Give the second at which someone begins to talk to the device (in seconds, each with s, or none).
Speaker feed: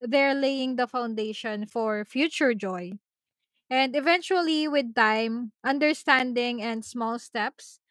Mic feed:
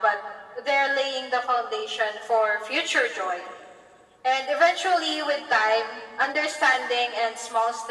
none